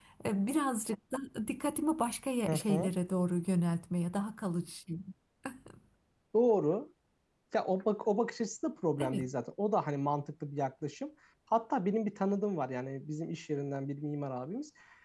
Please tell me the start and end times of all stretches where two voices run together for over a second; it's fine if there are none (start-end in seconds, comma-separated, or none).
none